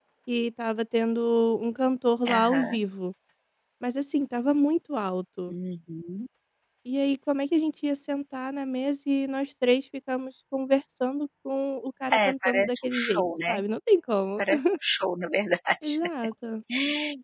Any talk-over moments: Yes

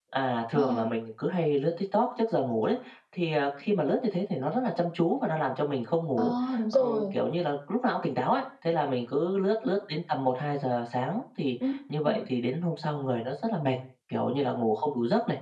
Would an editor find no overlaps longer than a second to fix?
Yes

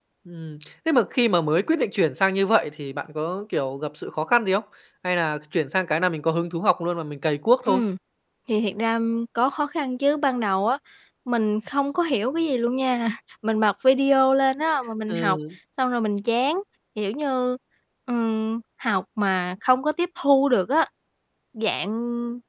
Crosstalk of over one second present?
No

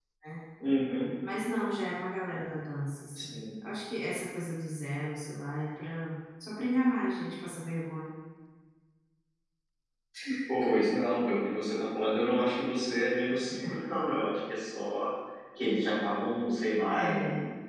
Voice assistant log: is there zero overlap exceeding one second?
Yes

